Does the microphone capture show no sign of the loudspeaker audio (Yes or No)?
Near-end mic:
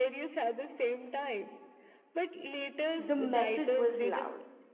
No